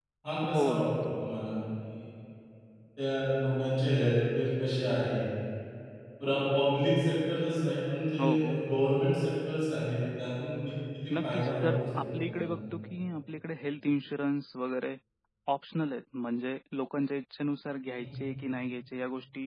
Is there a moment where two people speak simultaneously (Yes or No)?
Yes